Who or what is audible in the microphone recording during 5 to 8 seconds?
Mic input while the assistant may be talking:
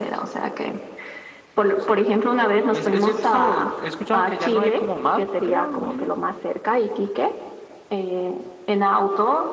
echo only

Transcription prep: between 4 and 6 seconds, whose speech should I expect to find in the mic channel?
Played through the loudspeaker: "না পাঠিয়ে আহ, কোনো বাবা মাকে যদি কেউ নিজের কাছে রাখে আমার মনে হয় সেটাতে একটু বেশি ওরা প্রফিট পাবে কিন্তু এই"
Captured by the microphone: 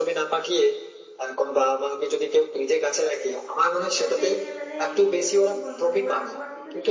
both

